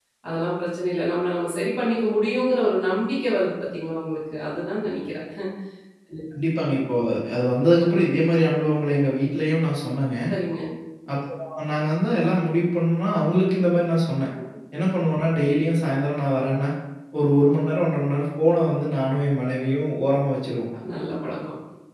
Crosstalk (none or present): none